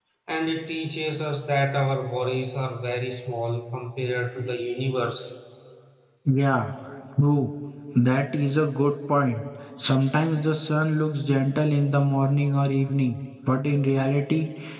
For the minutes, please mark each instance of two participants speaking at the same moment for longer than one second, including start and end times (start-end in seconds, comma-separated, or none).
none